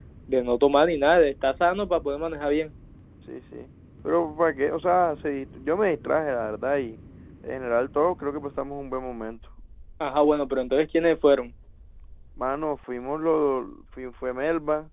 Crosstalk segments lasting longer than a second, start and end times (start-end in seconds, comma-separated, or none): none